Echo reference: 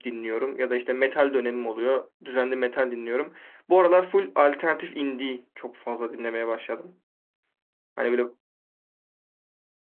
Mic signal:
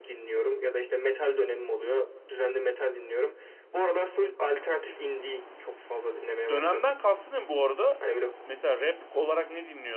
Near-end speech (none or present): present